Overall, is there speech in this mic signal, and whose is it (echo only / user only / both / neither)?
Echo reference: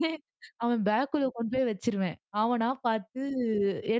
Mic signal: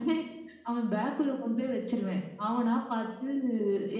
echo only